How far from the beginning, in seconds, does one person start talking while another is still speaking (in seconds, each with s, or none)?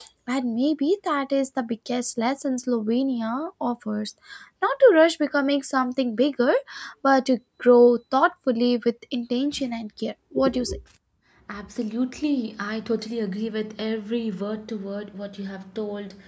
none